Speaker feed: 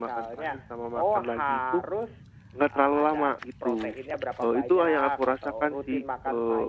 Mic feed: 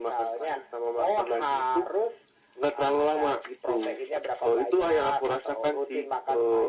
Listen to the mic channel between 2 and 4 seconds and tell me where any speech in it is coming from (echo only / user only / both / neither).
echo only